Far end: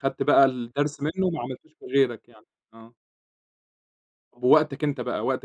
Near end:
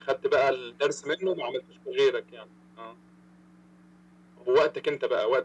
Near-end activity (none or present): none